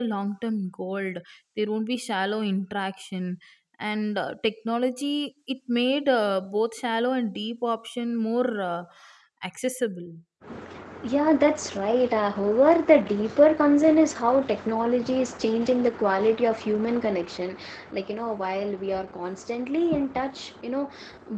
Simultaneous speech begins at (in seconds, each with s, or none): none